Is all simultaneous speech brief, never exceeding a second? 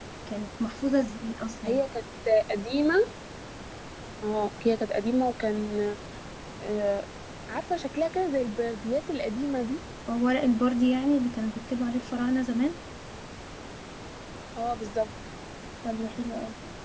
Yes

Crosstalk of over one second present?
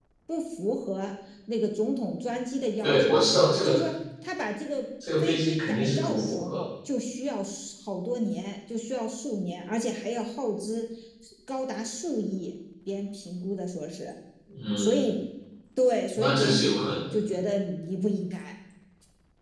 Yes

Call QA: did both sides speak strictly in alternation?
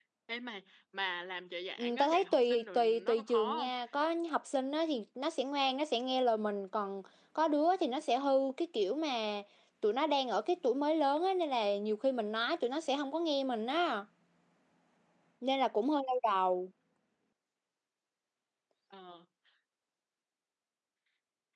No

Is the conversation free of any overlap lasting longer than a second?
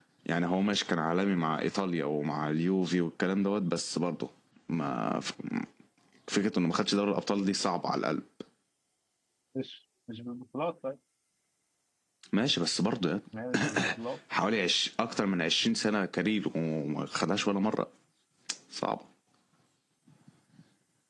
Yes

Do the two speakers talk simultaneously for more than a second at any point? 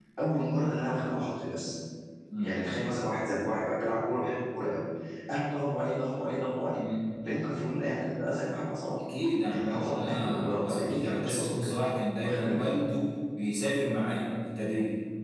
Yes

